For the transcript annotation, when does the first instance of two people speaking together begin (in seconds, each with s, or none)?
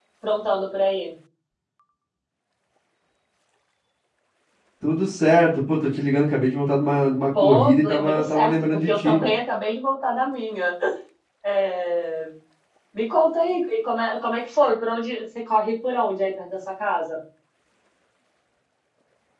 7.3 s